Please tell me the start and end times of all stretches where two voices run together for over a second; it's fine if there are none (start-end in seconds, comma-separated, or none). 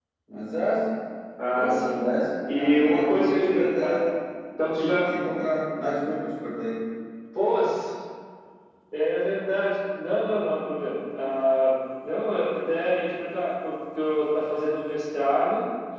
2.5-3.9